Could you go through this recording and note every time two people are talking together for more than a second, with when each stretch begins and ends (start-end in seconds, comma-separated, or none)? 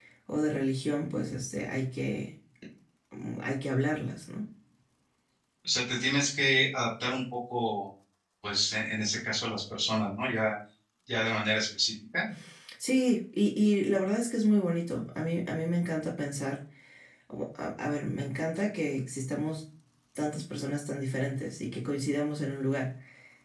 none